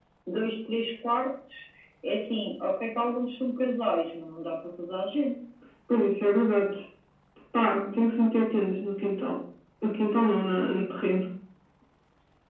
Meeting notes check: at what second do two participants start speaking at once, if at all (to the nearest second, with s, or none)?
none